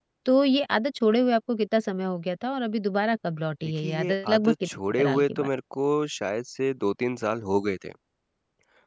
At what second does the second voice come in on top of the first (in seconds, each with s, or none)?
3.8 s